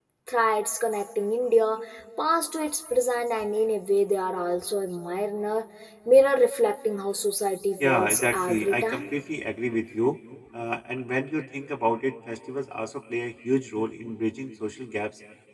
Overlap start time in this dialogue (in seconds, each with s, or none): 7.8 s